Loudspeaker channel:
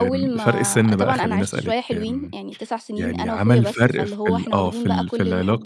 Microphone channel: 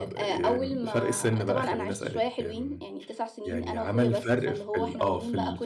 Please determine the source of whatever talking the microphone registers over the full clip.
echo only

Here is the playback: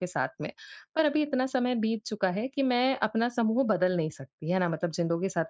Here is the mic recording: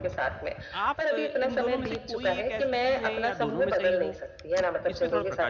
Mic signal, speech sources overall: both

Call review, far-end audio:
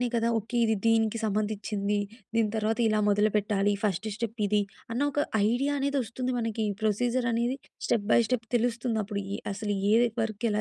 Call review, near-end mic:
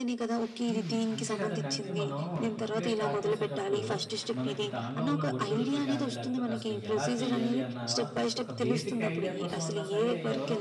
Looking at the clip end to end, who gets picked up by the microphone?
both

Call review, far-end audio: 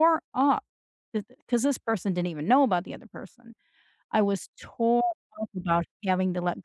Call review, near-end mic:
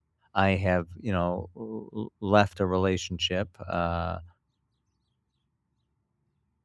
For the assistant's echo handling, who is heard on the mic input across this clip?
user only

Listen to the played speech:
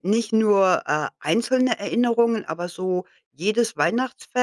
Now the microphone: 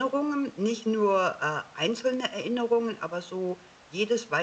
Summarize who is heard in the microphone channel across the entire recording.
echo only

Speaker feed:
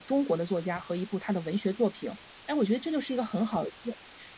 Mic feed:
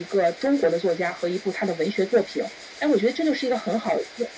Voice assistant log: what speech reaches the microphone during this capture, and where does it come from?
echo only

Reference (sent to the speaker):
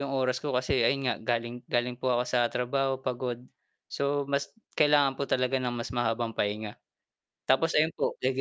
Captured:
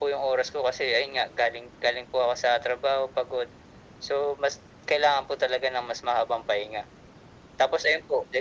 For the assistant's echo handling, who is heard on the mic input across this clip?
echo only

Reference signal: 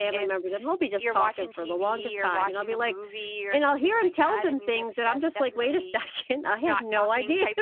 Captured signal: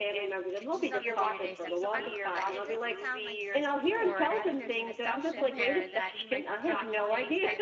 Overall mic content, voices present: both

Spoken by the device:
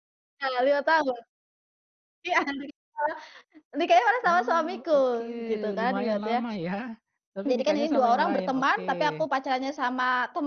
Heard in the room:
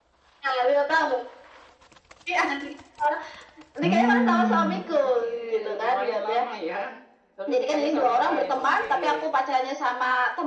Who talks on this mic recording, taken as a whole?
both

